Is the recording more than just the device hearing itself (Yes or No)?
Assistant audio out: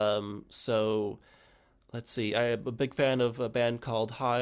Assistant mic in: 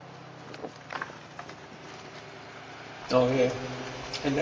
Yes